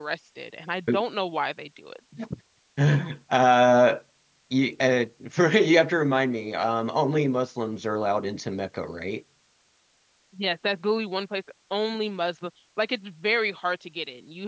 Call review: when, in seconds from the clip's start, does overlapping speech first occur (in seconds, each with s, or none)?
none